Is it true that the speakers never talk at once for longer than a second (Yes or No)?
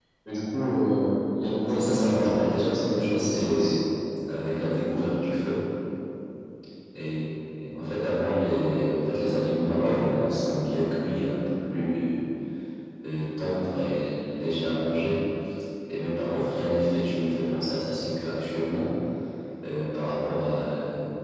No